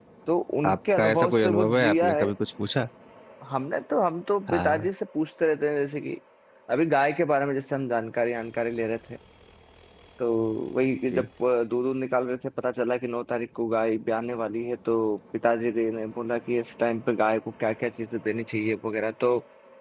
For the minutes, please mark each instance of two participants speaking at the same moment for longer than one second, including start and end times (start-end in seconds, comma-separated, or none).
0.7-2.3